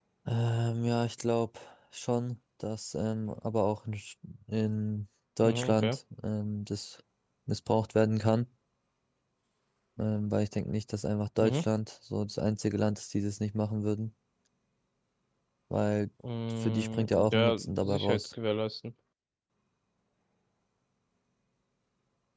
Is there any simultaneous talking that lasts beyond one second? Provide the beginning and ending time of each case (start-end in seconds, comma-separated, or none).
16.6-18.3